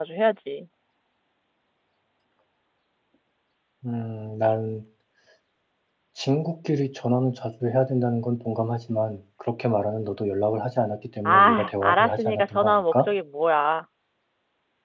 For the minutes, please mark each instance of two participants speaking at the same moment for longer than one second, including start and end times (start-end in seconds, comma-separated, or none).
11.2-13.1